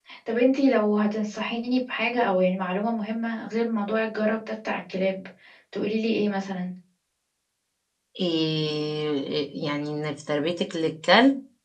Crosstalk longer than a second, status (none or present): none